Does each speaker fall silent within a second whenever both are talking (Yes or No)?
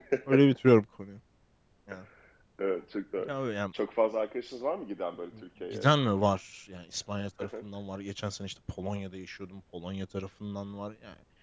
Yes